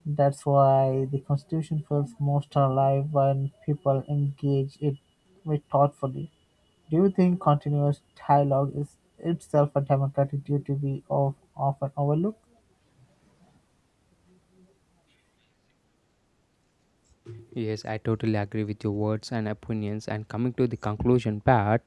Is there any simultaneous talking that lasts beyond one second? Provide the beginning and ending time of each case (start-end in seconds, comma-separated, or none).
none